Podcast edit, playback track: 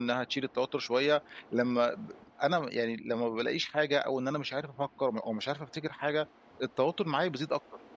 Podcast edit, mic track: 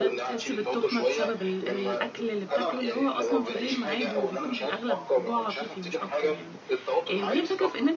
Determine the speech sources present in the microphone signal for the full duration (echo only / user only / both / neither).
both